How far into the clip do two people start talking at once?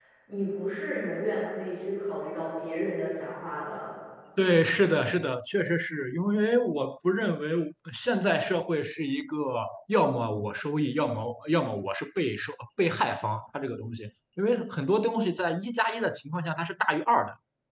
none

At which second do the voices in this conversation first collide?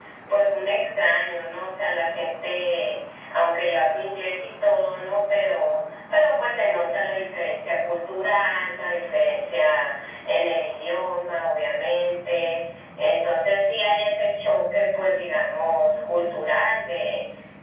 none

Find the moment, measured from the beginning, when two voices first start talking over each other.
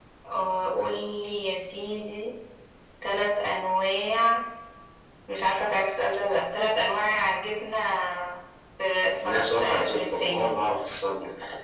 9.2 s

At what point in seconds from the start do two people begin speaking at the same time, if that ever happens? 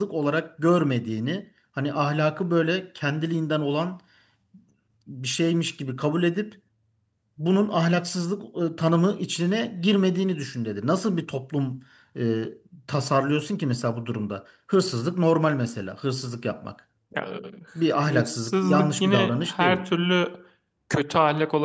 18.1 s

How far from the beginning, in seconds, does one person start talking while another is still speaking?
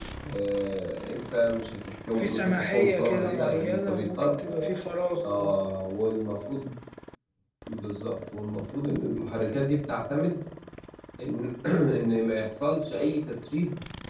2.2 s

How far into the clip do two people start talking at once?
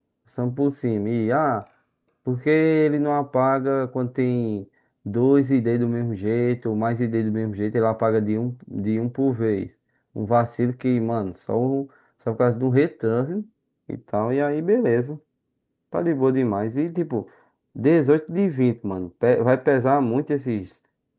none

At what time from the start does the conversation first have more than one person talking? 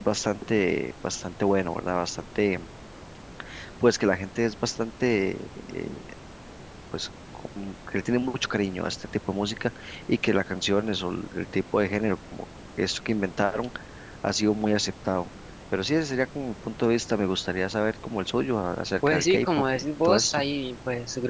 19.0 s

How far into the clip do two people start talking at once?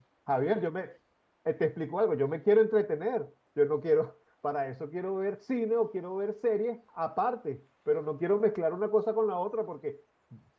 none

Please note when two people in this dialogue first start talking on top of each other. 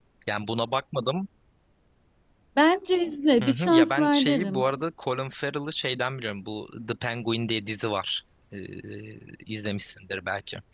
3.4 s

